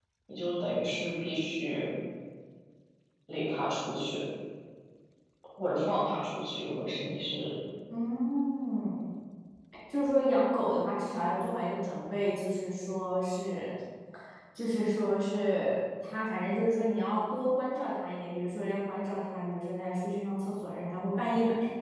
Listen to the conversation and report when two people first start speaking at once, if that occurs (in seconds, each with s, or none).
none